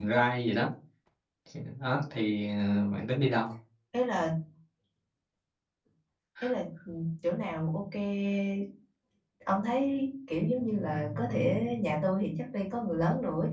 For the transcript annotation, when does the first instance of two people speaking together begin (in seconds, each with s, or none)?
none